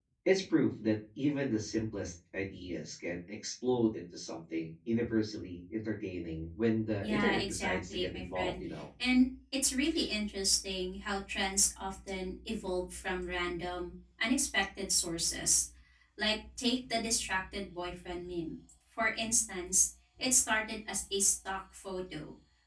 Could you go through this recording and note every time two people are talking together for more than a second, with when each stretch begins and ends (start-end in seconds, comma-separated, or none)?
7.0-8.6